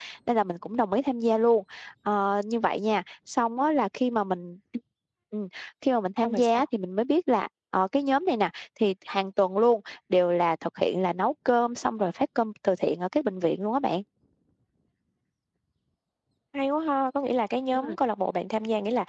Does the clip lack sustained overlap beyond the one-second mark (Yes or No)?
Yes